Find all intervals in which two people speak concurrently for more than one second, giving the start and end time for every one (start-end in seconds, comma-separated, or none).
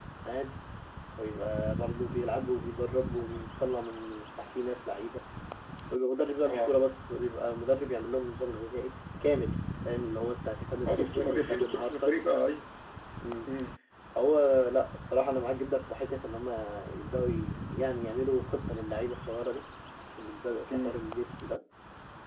10.9-12.1